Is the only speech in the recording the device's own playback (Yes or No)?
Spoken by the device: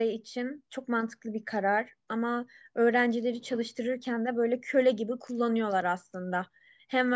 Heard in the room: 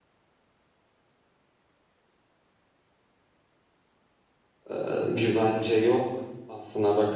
No